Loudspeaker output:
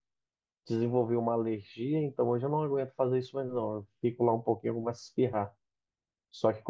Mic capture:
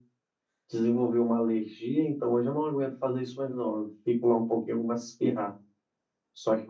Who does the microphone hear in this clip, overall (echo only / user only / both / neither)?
echo only